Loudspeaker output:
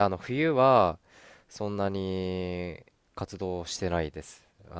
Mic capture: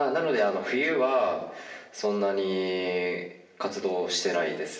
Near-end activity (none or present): none